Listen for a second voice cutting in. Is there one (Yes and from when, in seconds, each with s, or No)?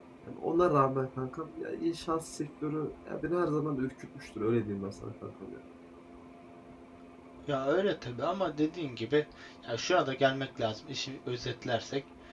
No